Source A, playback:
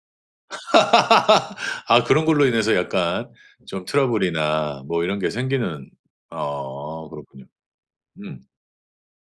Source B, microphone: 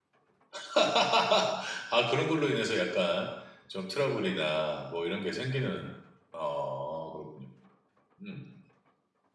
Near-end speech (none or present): present